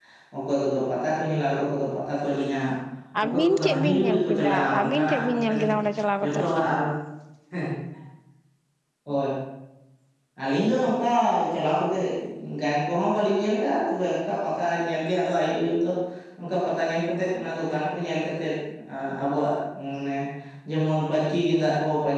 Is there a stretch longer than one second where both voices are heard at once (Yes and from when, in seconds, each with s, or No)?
Yes, from 3.2 s